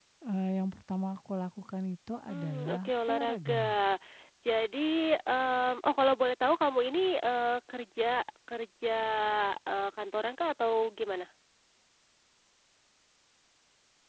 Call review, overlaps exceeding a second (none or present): present